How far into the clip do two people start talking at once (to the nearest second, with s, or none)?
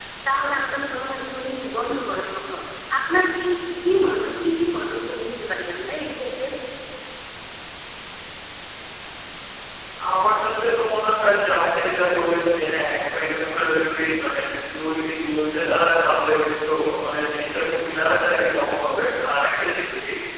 none